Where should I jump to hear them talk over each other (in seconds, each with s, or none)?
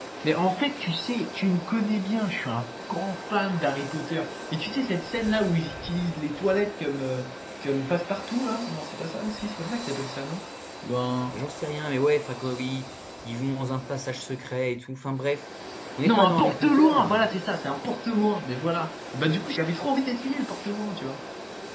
16.0 s